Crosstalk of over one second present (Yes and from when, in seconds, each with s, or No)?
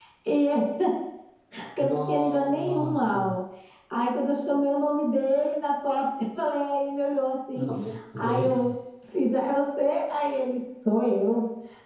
Yes, from 1.8 s